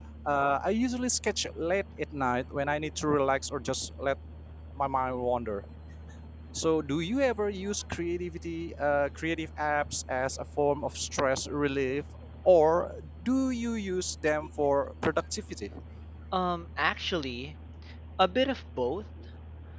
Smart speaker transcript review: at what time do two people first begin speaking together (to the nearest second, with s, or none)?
none